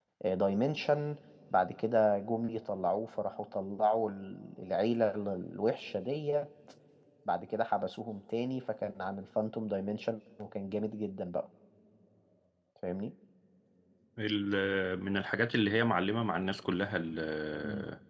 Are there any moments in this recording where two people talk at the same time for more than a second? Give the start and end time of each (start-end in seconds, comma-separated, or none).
none